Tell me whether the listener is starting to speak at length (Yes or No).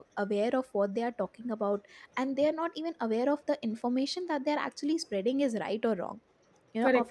No